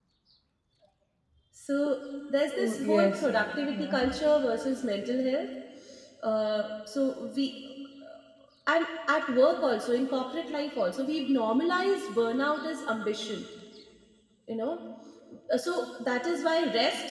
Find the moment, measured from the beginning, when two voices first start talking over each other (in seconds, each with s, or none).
2.5 s